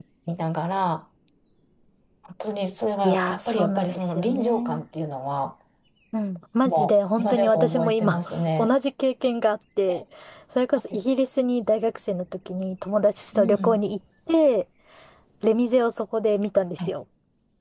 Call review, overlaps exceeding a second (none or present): present